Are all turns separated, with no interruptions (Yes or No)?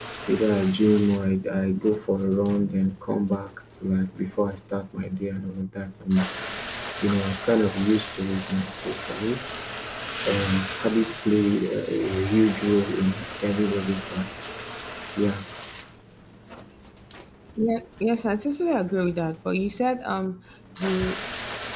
Yes